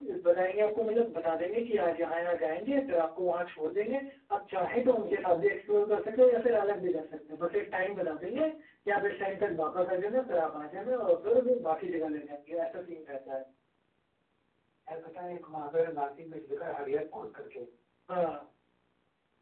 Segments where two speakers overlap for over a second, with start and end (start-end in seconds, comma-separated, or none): none